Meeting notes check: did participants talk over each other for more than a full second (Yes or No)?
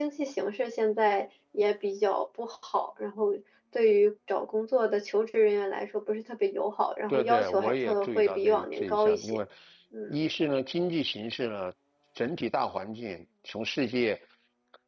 Yes